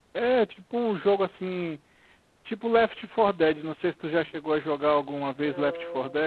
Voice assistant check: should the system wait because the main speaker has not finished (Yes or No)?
No